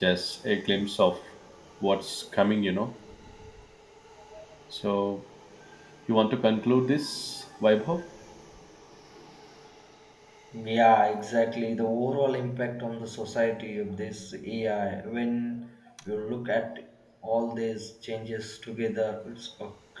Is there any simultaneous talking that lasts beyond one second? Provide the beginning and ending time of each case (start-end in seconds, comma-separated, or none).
none